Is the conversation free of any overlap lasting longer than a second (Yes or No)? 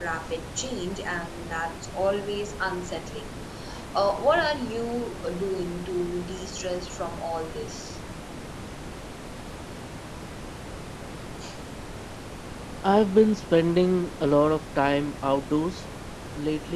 Yes